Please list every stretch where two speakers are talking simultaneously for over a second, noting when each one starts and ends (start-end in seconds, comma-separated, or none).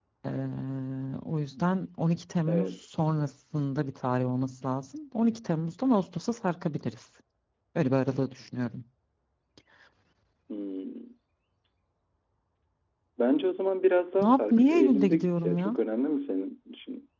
14.2-15.7